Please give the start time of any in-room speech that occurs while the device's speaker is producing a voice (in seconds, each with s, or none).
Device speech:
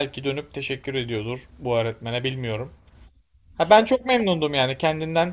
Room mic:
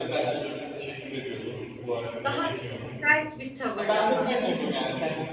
2.2 s